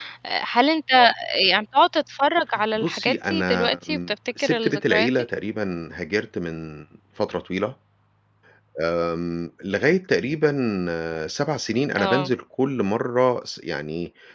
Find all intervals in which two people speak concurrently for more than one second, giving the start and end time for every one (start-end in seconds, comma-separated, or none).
2.8-5.1